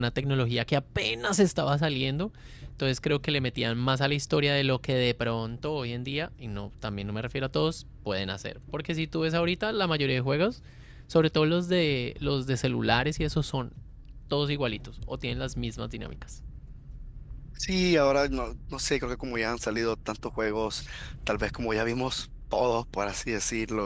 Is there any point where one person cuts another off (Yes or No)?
No